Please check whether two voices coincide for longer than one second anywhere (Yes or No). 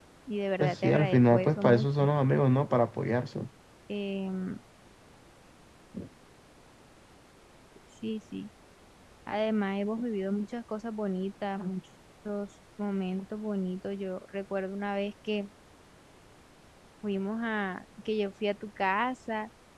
Yes